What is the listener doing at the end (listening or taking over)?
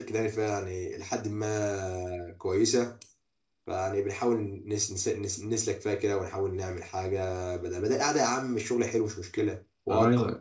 taking over